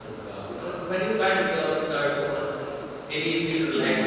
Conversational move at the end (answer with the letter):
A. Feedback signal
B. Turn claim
A